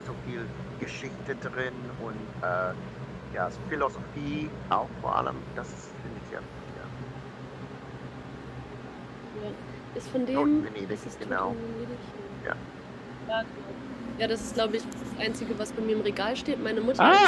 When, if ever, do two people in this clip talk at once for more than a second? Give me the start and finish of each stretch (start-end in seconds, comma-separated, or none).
10.3-11.5